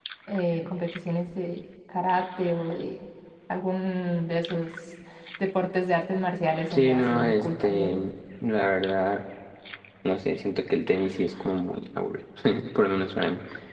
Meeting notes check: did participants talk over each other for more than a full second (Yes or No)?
Yes